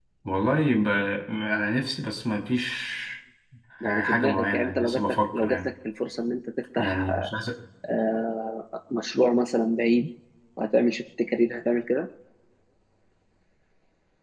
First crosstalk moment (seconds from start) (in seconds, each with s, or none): 4.0 s